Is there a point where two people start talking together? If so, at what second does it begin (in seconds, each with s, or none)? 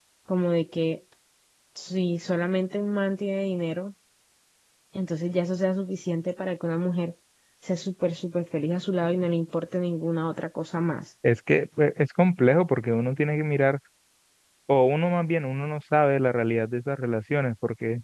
none